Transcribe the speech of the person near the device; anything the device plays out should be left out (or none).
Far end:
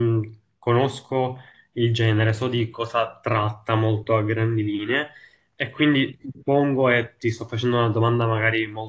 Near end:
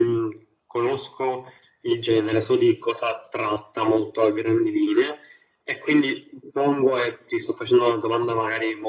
none